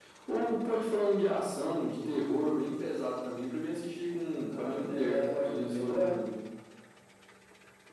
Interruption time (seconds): 5 s

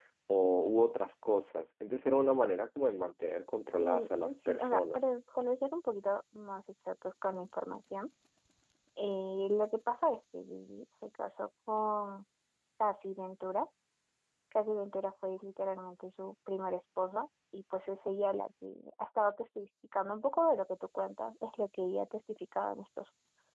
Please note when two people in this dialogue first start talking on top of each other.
4 s

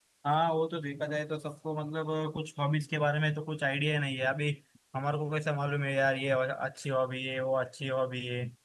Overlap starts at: none

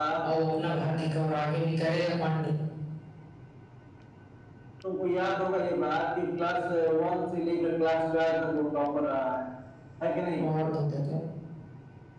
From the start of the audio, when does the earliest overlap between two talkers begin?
none

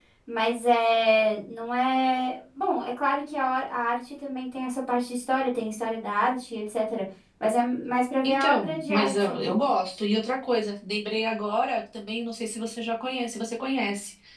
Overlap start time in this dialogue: 8 s

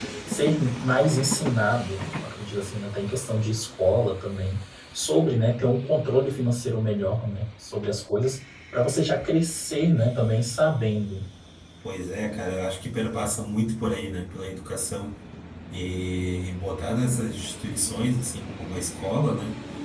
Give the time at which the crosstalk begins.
none

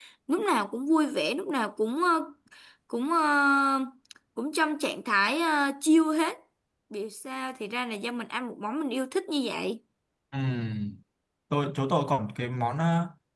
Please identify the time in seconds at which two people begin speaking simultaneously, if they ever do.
none

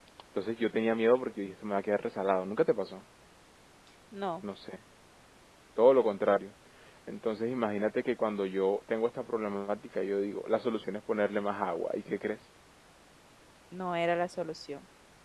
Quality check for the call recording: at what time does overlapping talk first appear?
none

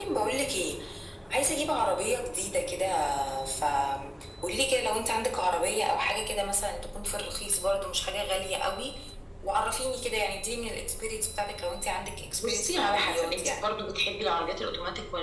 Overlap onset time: 12 s

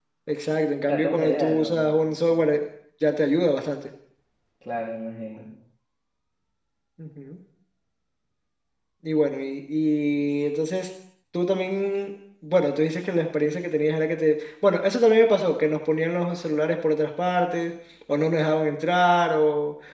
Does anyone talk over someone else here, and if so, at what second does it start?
1 s

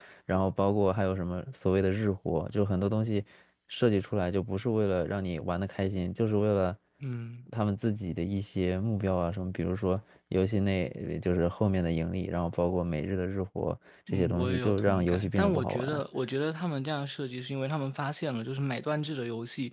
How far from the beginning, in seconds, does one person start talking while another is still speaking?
14 s

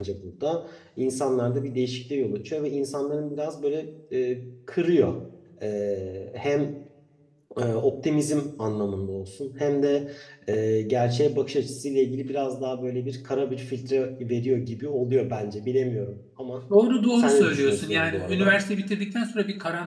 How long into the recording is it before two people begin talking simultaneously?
17 s

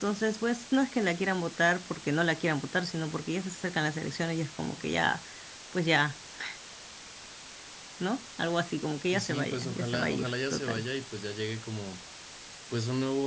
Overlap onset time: 9 s

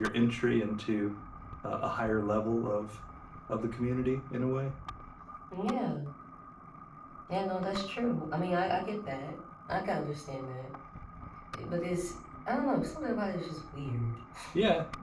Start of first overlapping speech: none

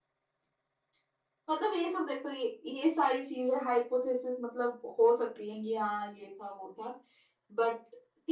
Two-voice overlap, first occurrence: none

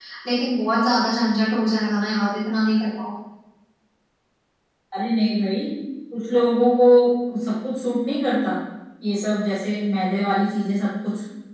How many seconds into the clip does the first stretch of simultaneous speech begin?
none

